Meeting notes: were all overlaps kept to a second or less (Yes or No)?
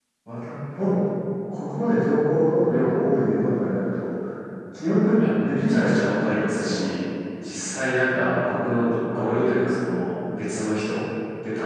No